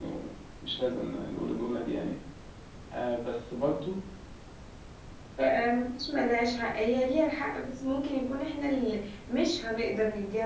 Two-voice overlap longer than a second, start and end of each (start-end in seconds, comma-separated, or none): none